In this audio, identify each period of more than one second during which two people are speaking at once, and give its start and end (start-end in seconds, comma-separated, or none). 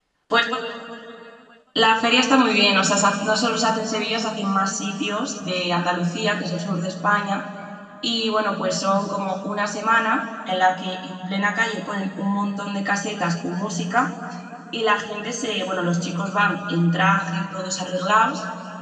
none